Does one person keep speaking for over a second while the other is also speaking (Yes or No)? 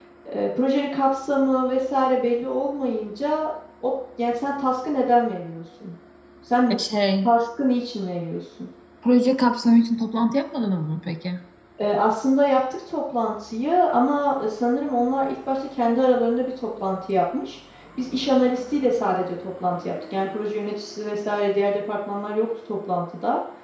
No